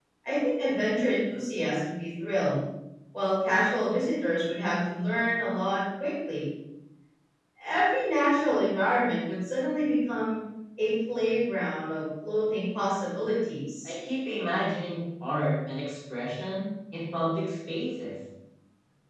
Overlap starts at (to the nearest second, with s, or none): none